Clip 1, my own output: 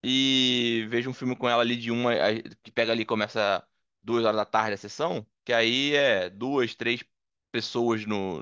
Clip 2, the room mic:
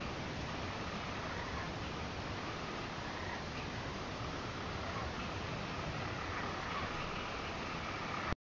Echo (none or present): none